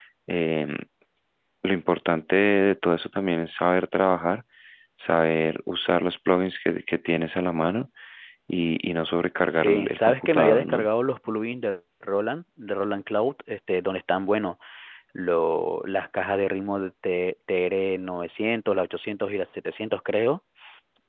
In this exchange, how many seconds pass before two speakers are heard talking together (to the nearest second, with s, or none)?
10 s